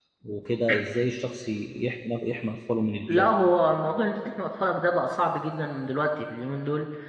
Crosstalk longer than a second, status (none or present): none